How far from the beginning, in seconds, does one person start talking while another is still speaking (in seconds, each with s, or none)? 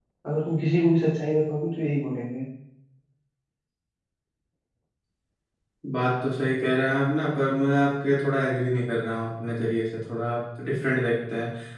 none